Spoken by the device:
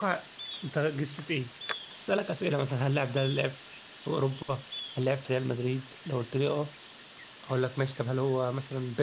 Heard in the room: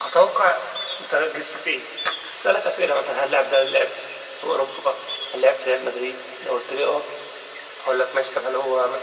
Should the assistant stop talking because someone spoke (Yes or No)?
No